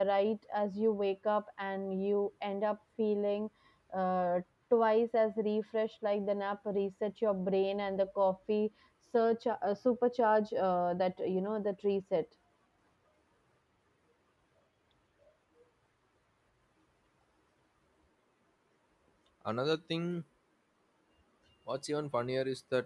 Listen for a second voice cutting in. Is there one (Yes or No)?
No